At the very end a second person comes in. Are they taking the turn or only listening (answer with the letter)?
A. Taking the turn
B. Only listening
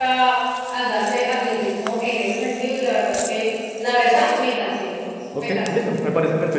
A